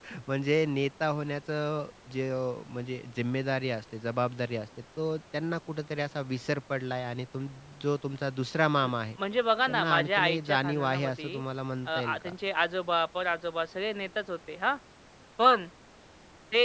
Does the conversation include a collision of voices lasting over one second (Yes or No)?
Yes